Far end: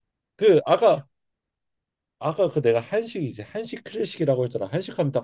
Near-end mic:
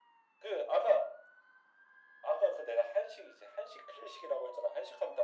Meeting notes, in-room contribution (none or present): none